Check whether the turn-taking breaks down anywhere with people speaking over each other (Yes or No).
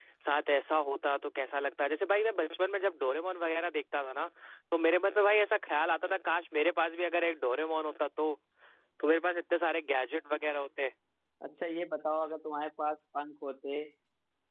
No